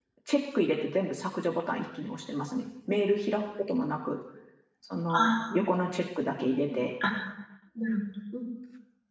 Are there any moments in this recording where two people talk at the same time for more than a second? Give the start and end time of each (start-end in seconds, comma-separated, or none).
none